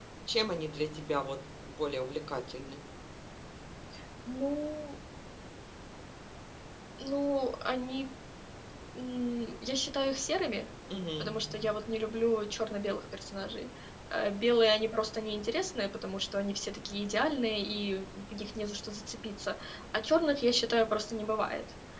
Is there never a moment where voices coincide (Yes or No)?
Yes